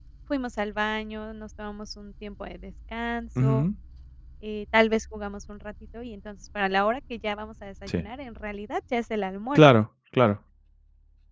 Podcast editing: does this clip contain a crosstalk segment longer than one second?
No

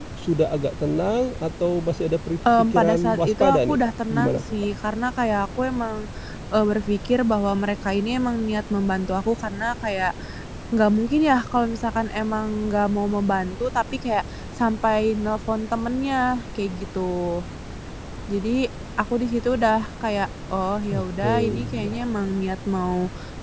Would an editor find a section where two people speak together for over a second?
Yes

